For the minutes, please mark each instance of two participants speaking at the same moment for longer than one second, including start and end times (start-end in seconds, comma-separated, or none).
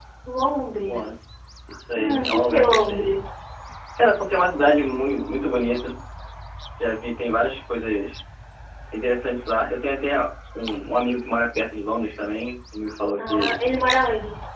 1.9-3.1